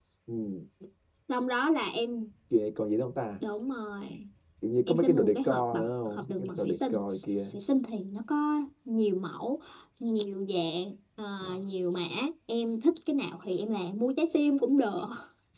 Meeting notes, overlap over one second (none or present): present